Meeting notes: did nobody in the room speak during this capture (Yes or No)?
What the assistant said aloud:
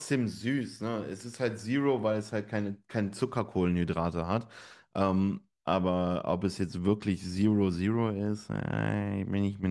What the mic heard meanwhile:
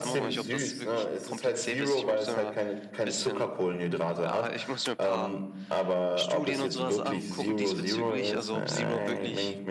No